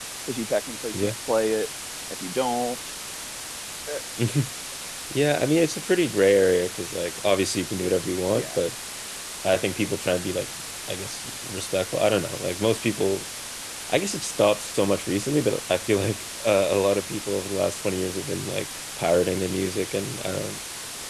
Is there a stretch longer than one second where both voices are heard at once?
No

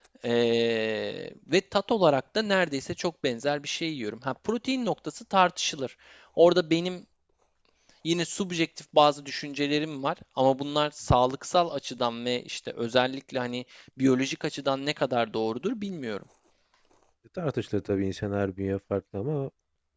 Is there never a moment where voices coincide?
Yes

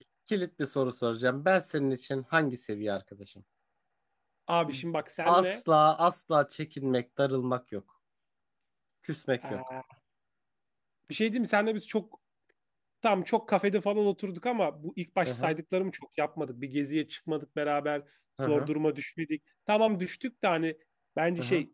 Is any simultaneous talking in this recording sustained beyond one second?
No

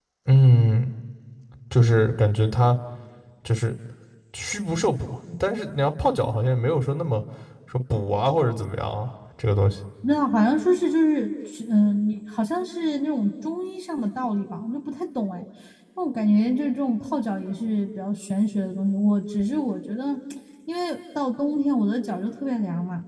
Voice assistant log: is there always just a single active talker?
Yes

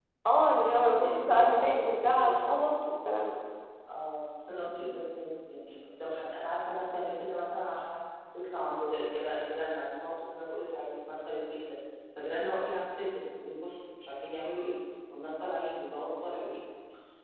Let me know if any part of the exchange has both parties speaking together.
Yes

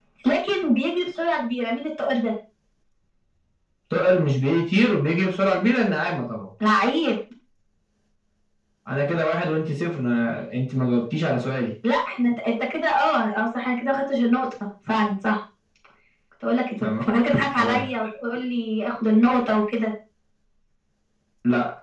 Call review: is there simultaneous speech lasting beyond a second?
No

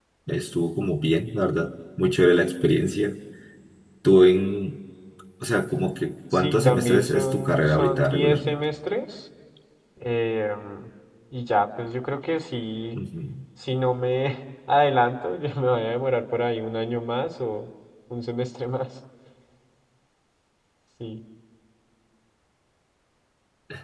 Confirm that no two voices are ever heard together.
No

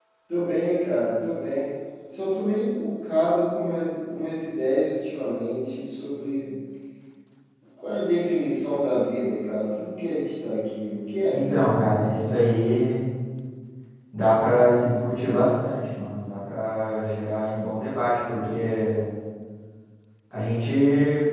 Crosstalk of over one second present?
No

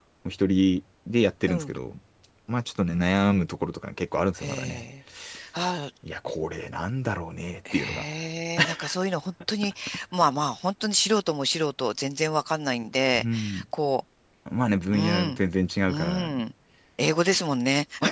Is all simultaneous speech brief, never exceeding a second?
Yes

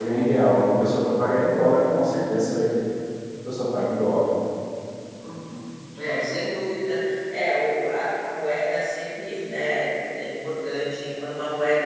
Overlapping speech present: No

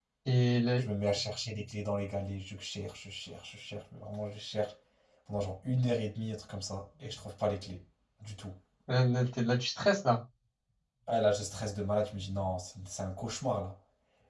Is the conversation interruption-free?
Yes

